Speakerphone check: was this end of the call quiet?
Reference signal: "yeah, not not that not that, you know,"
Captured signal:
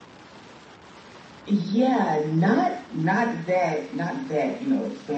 Yes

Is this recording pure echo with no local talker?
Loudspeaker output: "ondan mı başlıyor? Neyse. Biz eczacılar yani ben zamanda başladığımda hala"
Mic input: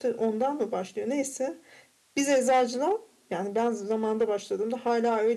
Yes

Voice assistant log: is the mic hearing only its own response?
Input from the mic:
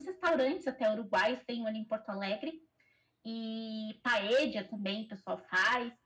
Yes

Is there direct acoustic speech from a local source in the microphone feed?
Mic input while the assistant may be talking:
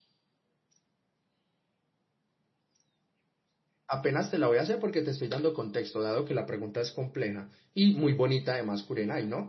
Yes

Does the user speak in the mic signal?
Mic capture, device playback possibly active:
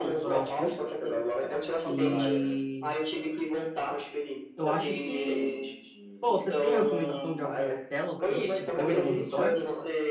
Yes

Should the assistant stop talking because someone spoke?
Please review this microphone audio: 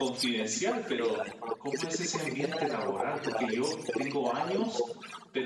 Yes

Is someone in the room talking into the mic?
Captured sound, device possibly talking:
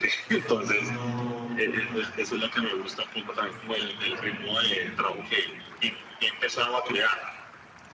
Yes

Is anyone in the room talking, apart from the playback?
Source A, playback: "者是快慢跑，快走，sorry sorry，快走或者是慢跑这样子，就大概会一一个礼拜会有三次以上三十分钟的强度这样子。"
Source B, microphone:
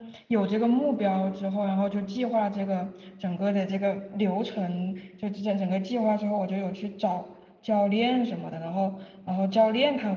Yes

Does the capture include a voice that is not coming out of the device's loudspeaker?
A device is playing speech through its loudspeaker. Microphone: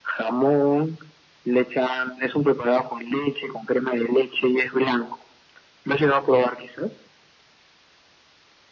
No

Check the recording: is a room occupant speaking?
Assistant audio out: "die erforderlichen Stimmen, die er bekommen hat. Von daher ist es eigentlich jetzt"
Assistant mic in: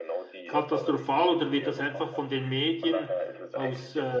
Yes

